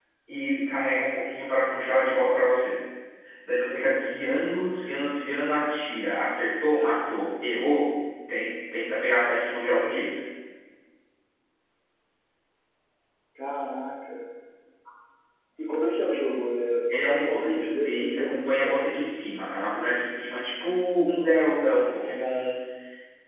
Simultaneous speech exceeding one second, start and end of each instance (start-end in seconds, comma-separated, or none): 16.9-18.8